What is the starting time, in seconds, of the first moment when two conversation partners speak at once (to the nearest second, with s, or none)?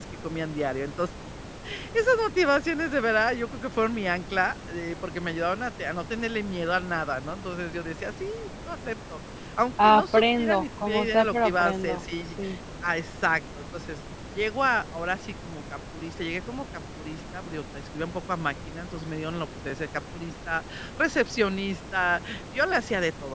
10 s